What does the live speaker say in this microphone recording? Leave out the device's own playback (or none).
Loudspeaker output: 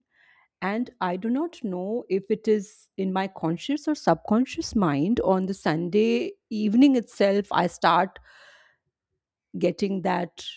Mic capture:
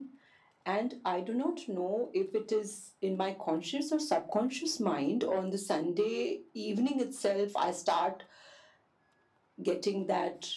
none